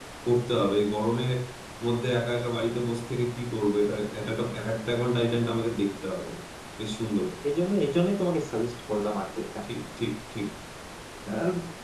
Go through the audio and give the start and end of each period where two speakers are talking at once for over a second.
none

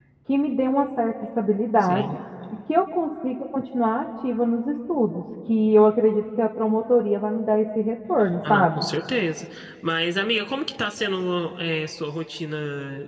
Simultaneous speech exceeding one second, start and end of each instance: none

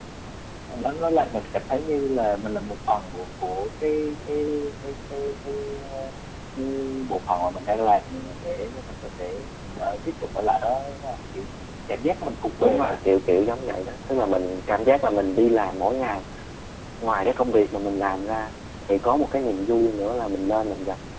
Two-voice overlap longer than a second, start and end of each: none

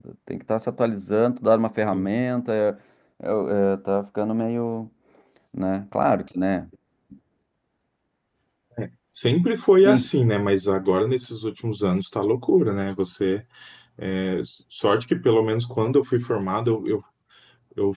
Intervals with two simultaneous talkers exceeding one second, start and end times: none

